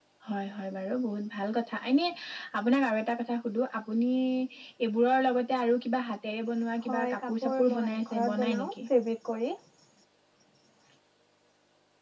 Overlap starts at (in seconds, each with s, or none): 6.8 s